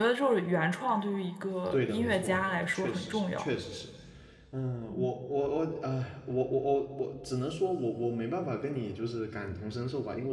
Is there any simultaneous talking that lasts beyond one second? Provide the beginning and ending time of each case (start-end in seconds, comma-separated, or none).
1.7-3.5